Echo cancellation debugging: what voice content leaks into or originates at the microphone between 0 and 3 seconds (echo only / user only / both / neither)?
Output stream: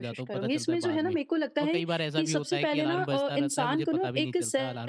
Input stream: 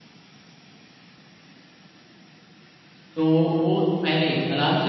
neither